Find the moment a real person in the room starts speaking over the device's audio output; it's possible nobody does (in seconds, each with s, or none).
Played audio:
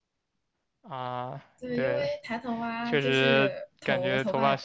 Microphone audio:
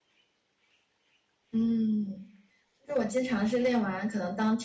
1.5 s